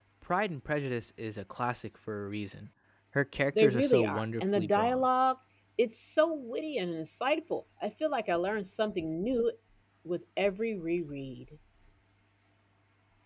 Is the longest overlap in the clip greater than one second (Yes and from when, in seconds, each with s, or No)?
Yes, from 3.5 s